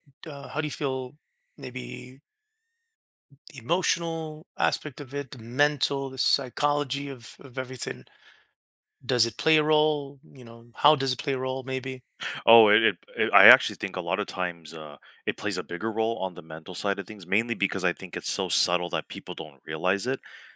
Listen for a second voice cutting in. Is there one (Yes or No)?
No